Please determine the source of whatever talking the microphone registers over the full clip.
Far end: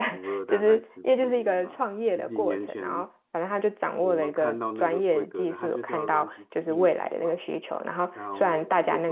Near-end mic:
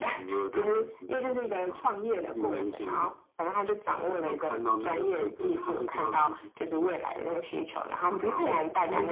both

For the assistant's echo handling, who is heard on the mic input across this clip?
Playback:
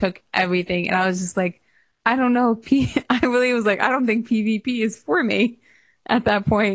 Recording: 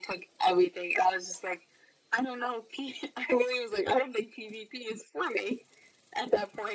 echo only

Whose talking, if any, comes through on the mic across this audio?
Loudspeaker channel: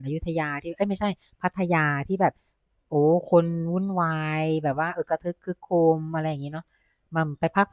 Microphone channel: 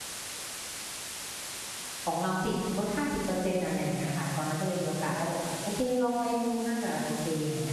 user only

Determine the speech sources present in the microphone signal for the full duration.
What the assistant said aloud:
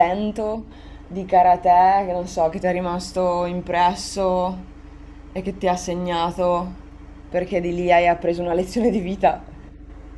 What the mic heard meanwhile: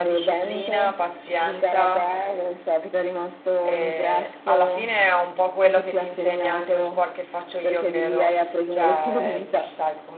both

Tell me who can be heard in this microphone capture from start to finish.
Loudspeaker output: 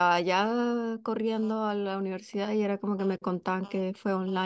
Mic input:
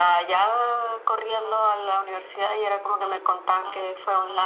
echo only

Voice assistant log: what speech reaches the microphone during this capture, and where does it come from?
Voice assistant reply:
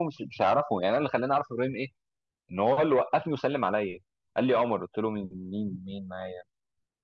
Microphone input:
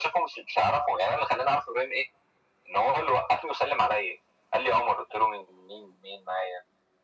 echo only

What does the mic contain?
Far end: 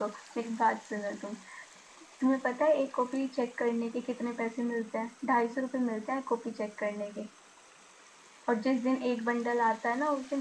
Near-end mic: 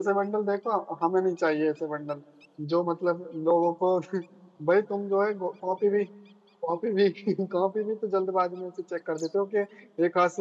user only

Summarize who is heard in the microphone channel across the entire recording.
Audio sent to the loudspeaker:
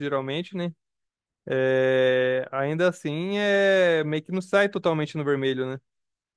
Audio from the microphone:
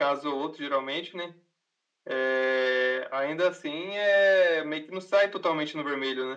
echo only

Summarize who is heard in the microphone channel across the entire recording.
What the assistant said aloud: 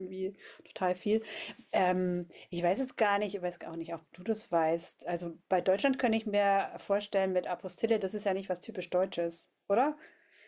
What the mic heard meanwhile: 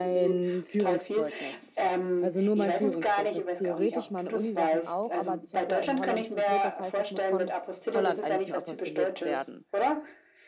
both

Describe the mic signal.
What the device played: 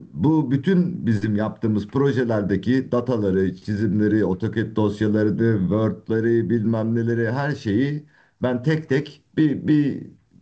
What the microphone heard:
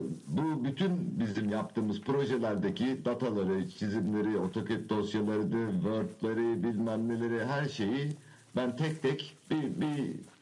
echo only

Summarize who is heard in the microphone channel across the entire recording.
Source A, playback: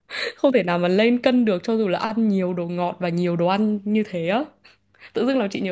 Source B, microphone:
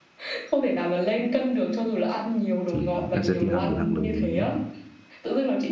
both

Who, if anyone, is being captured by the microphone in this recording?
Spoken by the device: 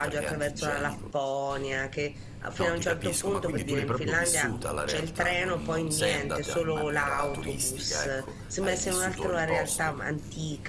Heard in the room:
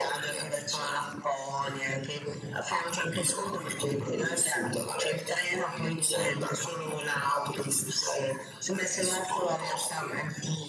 echo only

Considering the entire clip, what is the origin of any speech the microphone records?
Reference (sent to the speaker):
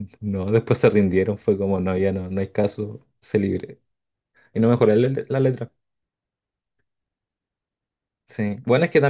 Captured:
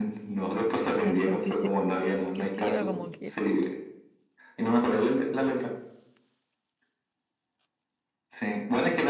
both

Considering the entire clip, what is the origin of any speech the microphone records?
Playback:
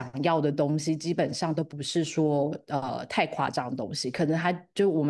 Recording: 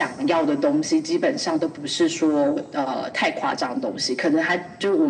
echo only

